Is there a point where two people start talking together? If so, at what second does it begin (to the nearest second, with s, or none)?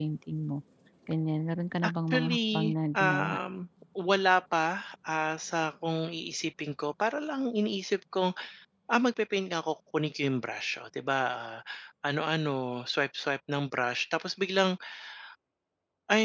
2 s